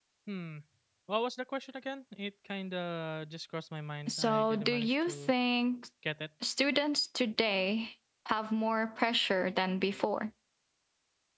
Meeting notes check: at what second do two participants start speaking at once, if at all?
4.1 s

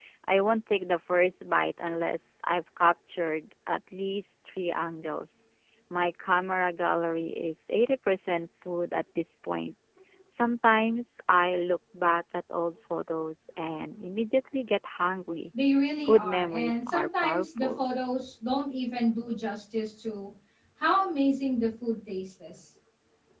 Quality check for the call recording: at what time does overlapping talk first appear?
16.1 s

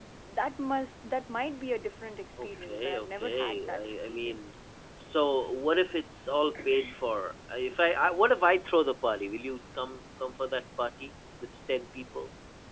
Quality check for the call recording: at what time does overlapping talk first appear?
2.4 s

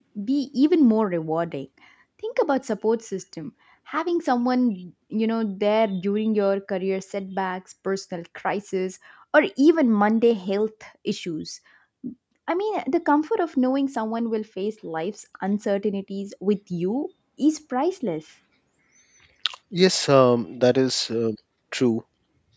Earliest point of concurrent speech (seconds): none

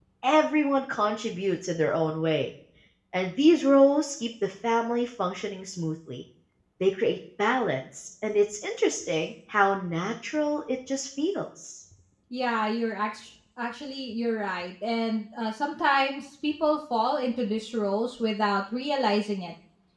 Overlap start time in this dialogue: none

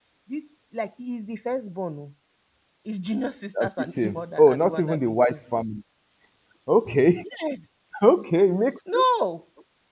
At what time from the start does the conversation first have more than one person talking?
3.6 s

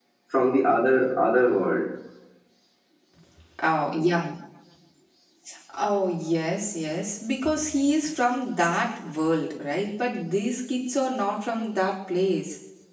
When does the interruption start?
none

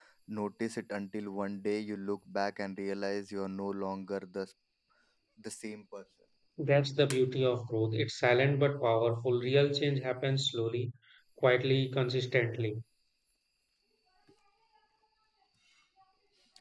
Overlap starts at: none

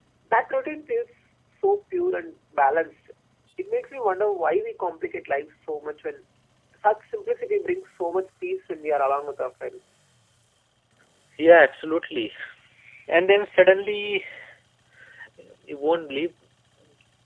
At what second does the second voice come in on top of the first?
none

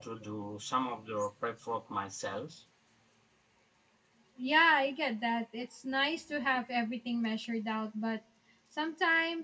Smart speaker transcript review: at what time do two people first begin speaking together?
none

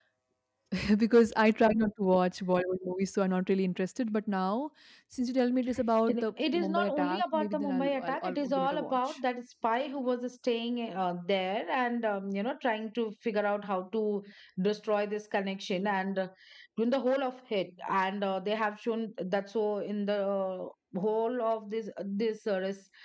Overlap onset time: 6.1 s

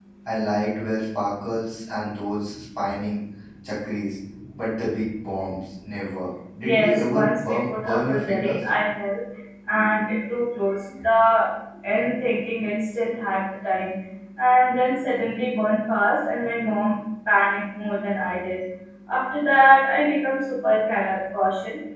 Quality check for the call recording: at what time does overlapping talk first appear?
6.6 s

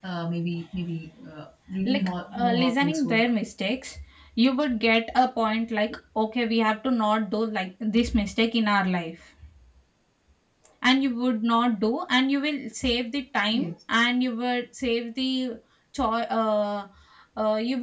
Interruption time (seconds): 1.9 s

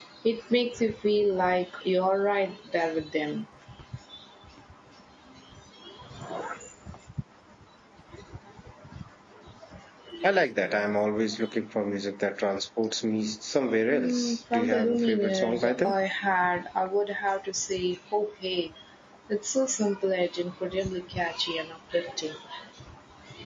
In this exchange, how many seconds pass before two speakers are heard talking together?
13.8 s

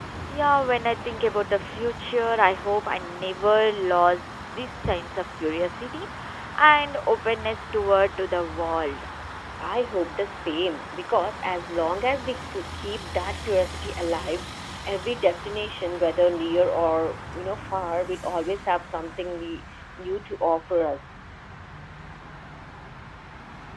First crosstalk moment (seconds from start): none

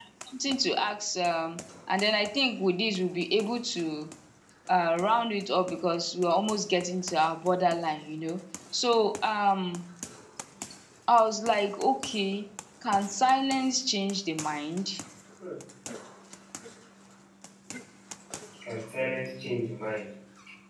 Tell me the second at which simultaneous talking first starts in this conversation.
none

